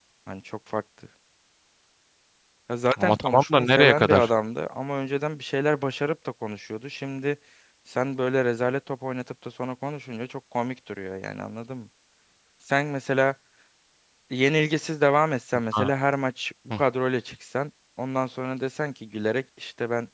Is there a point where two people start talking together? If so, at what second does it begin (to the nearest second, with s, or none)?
3 s